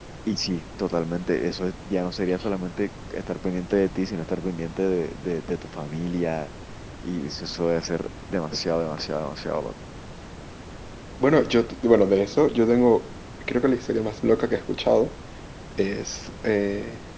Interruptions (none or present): none